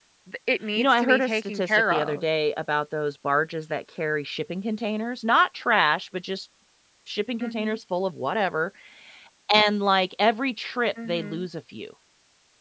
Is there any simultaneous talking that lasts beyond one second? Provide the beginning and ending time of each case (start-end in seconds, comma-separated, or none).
0.8-2.2